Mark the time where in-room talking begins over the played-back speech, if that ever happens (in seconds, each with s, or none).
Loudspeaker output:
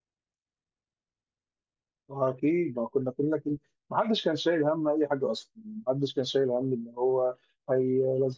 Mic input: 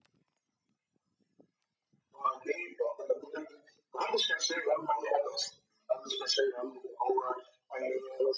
none